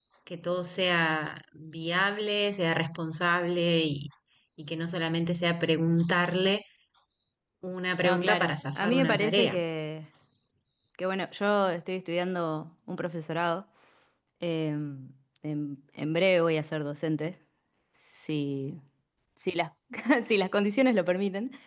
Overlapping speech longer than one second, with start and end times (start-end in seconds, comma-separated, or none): 8.0-9.6